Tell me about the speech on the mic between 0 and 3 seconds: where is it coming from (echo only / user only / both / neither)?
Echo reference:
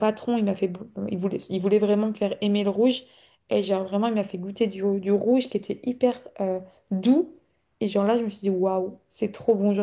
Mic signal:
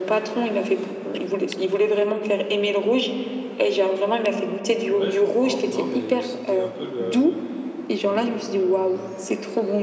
echo only